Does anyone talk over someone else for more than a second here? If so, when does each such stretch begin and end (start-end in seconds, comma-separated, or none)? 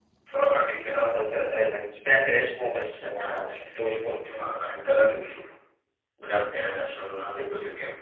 none